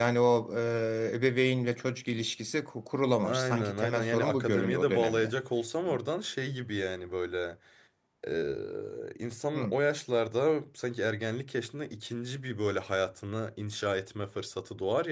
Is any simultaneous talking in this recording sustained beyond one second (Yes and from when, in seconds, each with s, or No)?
Yes, from 3.2 s